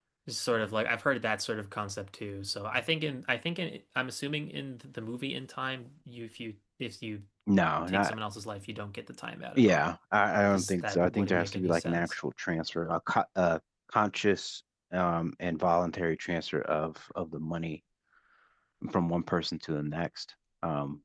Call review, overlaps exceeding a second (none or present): present